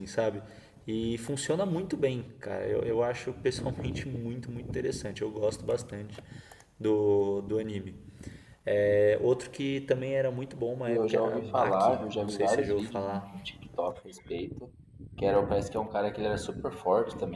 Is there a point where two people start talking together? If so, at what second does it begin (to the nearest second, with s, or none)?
11 s